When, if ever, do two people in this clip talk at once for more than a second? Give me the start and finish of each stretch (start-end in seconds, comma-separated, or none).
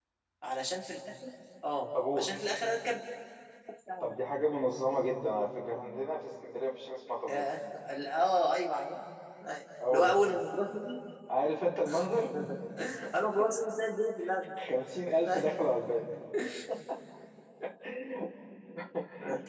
none